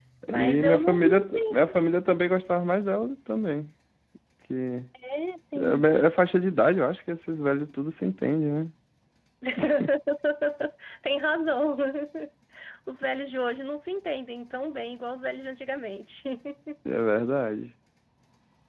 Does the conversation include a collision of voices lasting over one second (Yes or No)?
Yes